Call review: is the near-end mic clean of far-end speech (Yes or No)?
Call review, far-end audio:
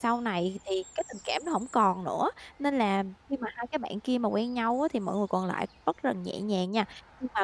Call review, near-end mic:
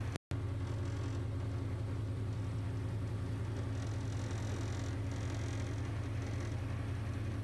Yes